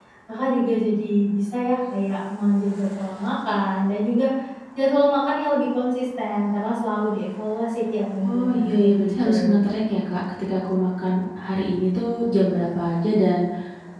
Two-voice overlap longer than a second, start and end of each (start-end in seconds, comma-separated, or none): 8.2-9.6